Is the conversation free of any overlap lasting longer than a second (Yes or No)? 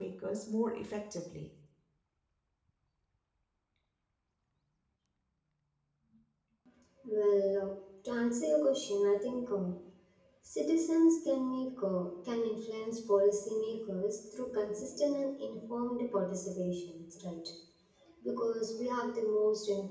Yes